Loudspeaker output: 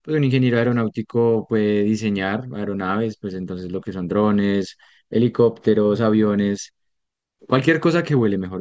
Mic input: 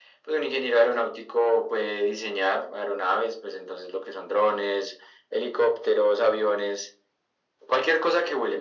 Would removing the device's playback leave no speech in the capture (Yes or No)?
Yes